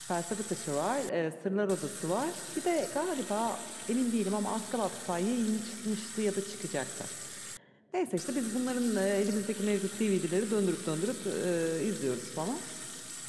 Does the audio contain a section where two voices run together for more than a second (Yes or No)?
No